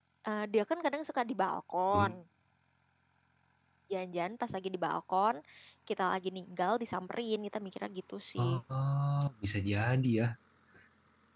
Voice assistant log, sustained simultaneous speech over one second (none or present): none